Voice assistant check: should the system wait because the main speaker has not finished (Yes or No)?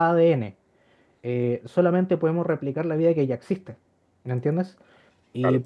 Yes